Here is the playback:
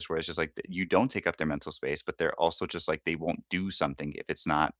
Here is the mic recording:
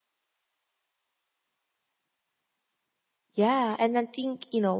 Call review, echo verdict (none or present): none